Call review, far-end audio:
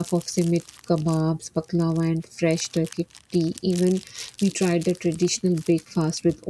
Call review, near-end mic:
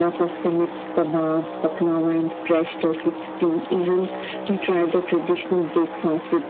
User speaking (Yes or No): No